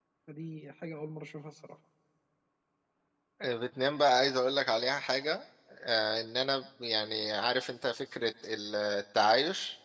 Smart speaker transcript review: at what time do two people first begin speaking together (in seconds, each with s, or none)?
none